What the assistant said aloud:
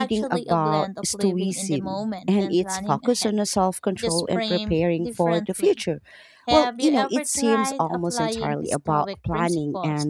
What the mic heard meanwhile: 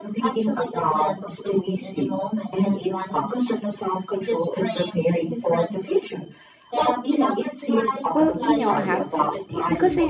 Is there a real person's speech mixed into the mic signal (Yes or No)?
Yes